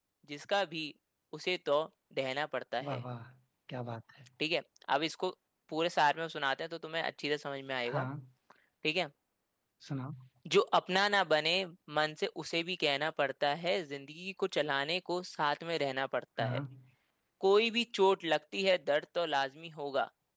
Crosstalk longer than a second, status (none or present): none